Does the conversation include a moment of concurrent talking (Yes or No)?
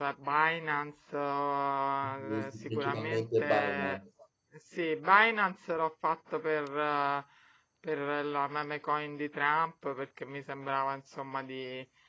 Yes